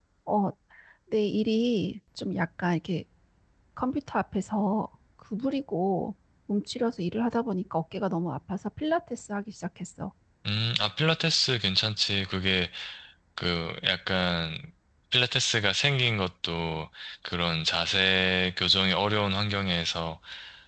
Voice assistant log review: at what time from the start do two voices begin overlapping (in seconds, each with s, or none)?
none